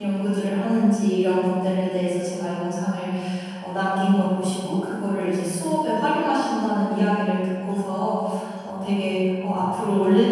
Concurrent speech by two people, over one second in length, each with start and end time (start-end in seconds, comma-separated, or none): none